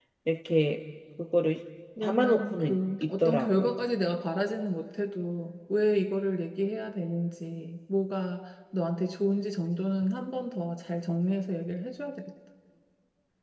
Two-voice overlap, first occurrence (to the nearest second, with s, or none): 2 s